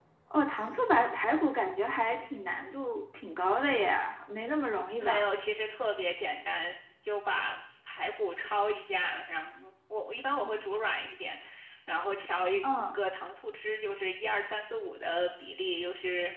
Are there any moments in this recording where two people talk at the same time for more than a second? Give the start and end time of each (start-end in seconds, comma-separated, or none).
none